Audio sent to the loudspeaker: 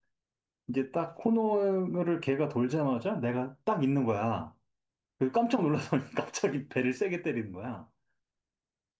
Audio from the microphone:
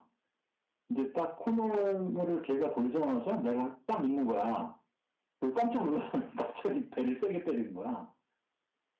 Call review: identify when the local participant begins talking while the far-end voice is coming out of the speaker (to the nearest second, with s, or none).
none